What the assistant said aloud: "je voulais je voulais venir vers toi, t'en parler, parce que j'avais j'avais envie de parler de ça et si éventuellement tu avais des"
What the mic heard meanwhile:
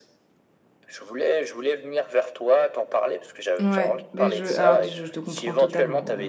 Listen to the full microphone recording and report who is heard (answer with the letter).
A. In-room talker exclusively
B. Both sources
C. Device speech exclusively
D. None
B